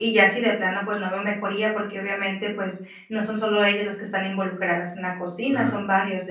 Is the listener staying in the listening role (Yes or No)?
Yes